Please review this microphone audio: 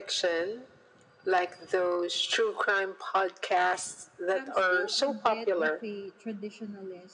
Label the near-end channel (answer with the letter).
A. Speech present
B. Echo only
A